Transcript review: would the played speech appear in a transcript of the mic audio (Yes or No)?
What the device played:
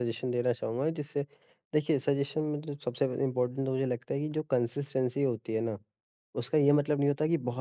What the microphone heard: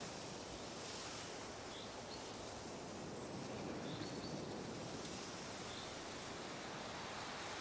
No